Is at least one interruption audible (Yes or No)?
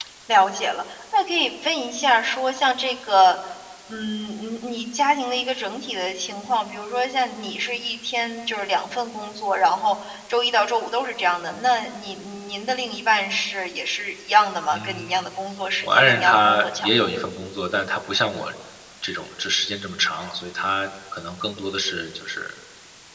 Yes